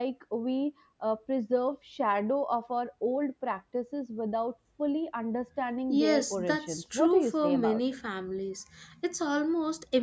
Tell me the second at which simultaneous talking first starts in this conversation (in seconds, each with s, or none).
5.9 s